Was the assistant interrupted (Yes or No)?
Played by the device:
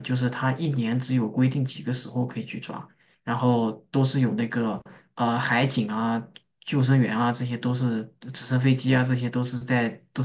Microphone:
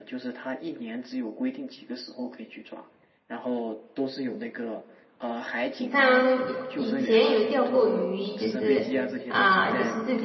Yes